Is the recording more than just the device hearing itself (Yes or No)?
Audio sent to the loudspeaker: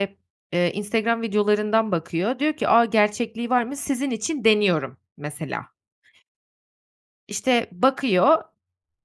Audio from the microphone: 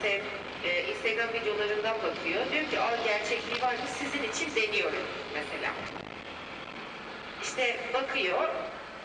No